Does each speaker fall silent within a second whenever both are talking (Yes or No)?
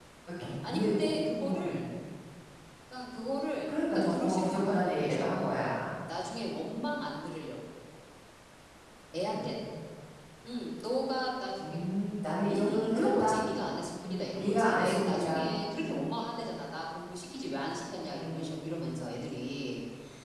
No